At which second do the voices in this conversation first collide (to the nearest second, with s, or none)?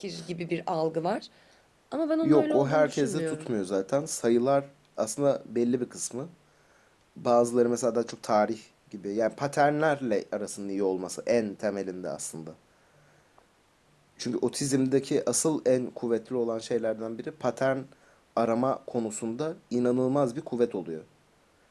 2 s